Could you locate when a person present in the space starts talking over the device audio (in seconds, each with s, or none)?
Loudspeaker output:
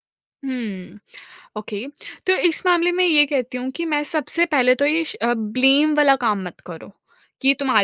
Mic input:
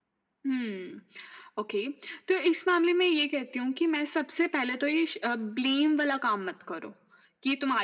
none